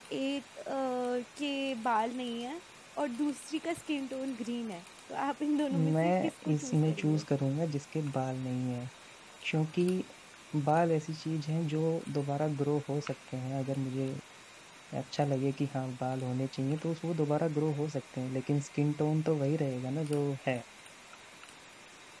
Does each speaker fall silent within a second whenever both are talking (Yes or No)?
No